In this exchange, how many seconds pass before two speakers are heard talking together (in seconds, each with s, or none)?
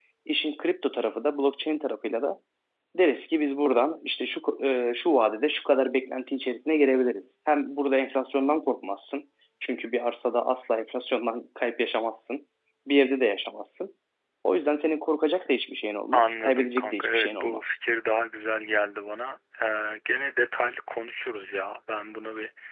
16.1 s